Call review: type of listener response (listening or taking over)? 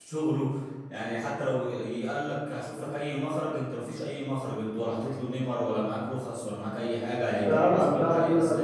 taking over